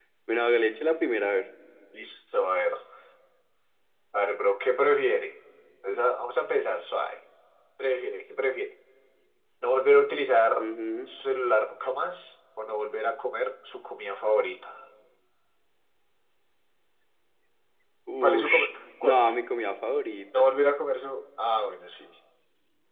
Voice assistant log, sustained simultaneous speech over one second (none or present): none